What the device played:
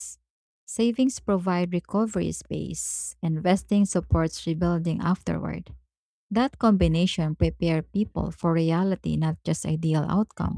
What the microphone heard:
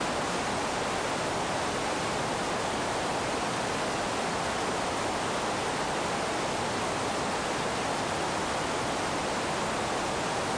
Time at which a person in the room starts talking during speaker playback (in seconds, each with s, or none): none